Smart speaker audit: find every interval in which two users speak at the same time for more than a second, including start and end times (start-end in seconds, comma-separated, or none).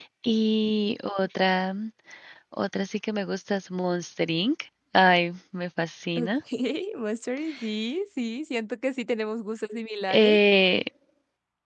none